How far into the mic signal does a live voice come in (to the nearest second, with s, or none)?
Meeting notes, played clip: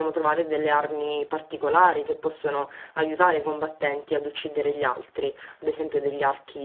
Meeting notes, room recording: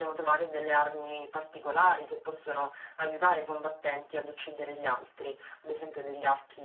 none